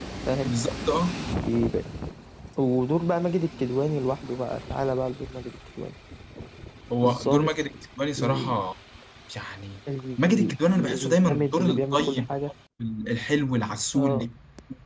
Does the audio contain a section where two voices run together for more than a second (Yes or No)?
Yes